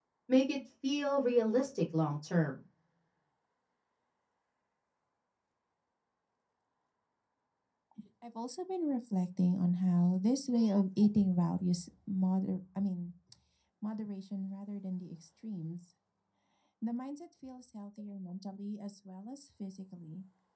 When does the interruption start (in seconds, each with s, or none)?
none